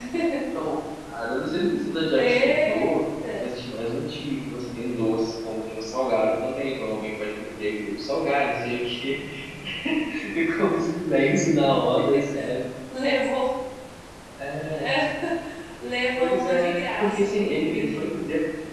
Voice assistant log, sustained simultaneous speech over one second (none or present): present